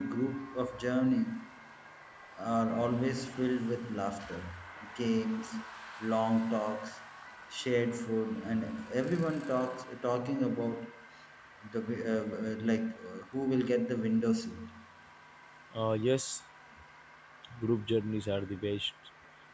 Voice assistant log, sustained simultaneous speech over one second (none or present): none